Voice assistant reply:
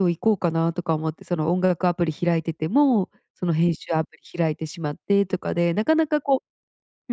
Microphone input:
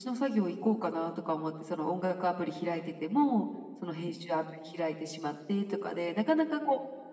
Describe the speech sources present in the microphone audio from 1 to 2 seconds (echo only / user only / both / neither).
echo only